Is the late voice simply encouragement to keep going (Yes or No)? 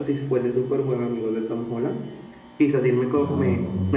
Yes